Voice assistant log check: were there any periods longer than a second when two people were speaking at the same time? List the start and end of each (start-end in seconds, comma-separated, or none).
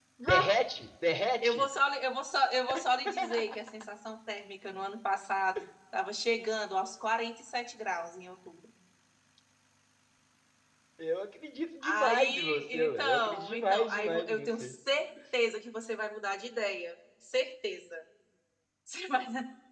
11.8-14.7